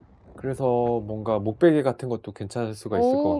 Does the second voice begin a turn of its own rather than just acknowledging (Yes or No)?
Yes